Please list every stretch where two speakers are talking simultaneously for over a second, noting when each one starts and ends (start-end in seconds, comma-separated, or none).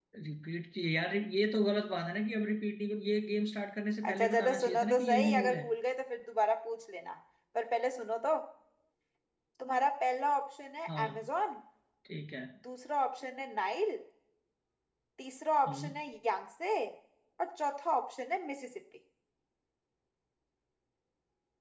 4.1-5.6